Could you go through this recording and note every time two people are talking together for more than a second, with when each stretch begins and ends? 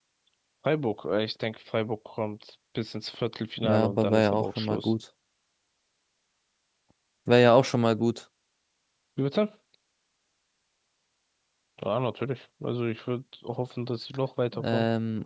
3.6-4.9

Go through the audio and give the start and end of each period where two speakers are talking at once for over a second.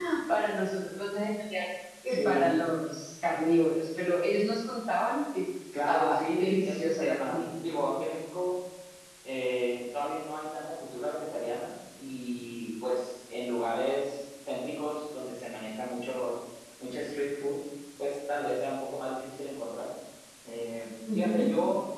5.9-7.4

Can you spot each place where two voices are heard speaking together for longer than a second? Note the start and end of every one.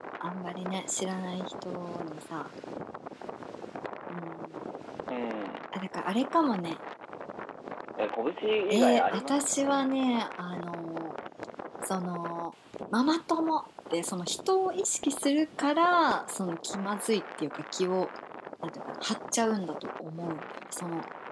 8.7-10.0

